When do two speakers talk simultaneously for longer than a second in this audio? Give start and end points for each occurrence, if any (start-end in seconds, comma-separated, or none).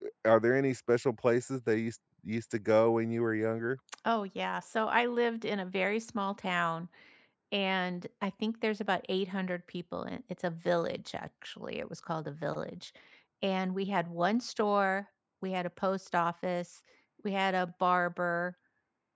none